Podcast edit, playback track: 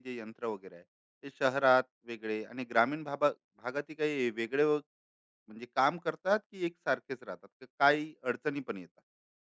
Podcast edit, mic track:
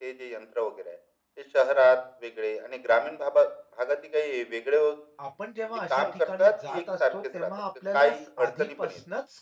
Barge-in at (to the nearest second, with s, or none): 5 s